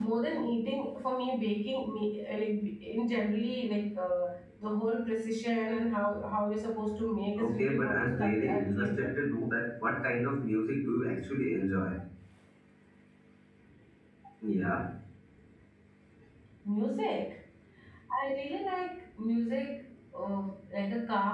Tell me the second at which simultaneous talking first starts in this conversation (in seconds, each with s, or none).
7.4 s